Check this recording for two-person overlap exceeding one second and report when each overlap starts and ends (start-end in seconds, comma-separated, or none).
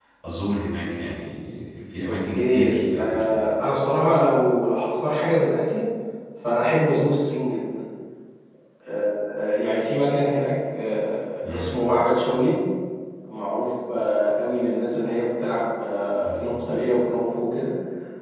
2.1-3.5